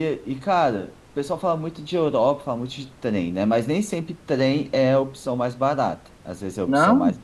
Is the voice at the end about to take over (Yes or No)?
No